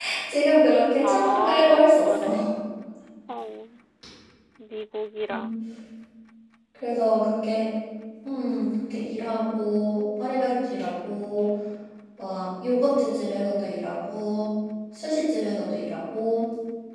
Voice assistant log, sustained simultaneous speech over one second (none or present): present